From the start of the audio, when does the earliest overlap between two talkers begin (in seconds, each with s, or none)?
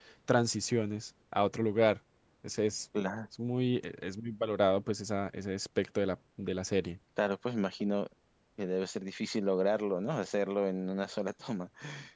none